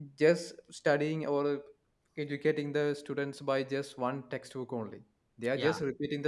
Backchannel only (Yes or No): Yes